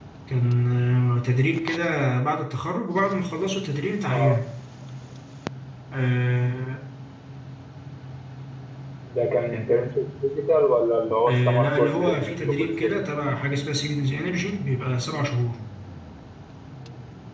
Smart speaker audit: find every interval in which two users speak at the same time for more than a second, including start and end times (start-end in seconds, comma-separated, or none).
11.3-12.9